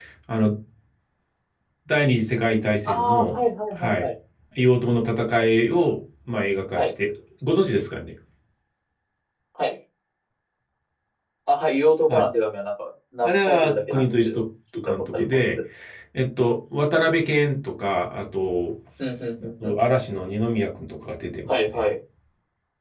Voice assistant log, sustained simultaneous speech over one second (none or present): present